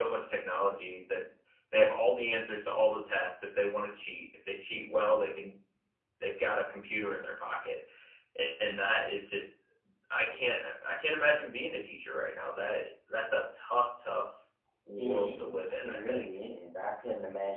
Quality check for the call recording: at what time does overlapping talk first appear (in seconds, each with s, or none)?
15.0 s